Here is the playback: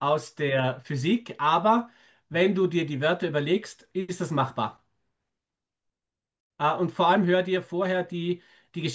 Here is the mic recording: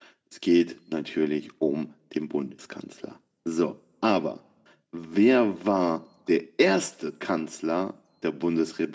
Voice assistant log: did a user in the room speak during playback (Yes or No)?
Yes